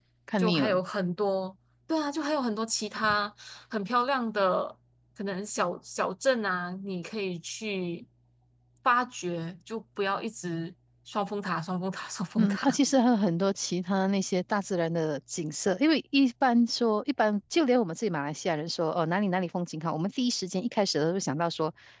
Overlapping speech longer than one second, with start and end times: none

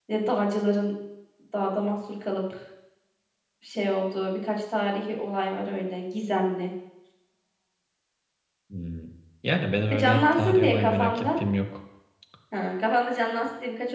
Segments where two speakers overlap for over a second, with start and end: 9.9-11.4

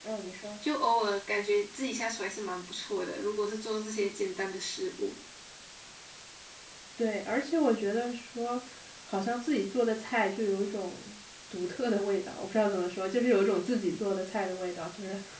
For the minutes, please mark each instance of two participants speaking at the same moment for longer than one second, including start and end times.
none

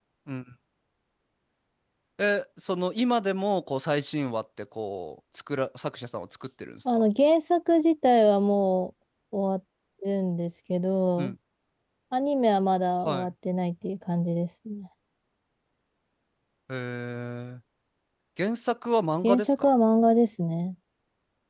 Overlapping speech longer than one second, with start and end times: none

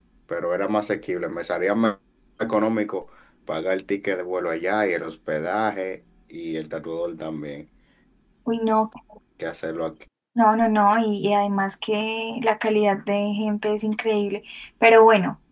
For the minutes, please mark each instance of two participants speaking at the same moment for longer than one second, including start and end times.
none

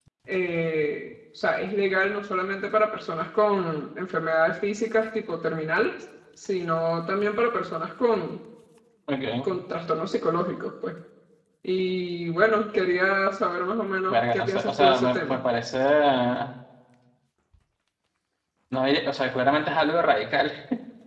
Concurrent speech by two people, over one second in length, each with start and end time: 14.1-15.4

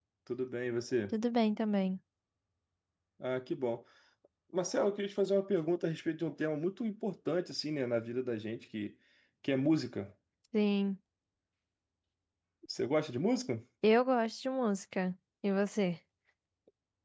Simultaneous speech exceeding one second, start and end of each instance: none

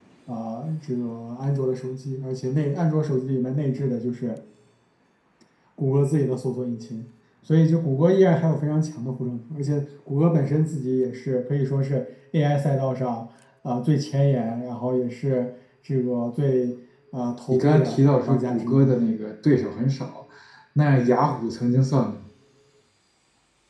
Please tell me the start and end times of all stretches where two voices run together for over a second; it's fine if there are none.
17.5-18.9

